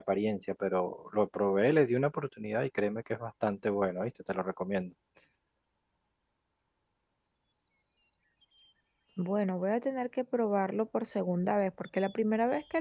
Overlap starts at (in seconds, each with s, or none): none